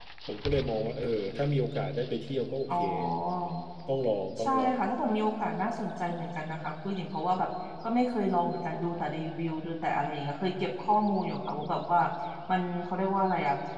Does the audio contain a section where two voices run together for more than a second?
No

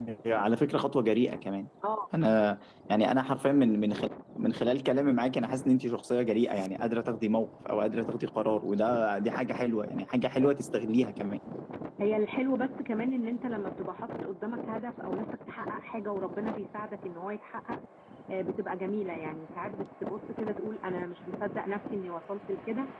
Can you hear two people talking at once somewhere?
No

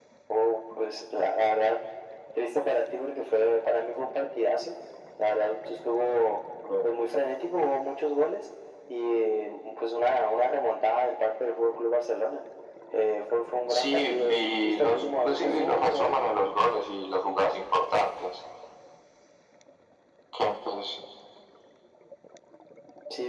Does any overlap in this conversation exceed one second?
Yes, from 13.7 s

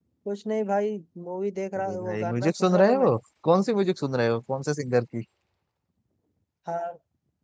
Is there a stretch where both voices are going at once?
Yes, from 1.8 s

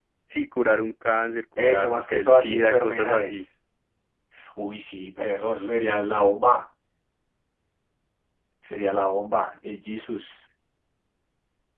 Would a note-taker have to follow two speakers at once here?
Yes, from 1.6 s

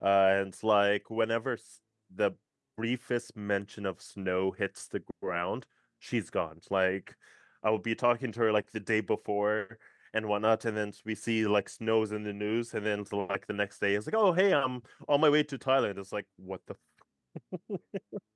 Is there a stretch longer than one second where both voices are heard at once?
No

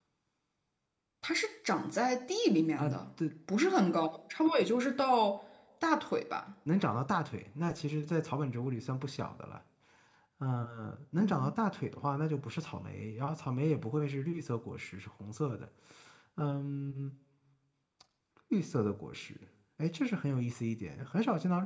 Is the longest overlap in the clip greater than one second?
No

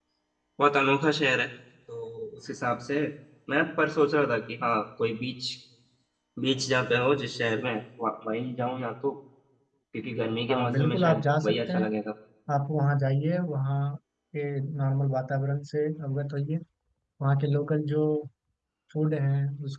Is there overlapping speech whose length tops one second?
Yes, from 10.5 s

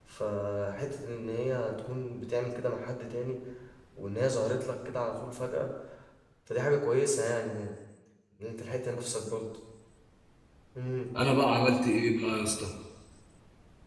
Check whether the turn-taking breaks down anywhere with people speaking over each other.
No

